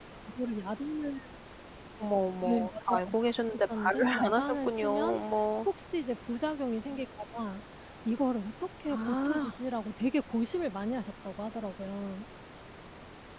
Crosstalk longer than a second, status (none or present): present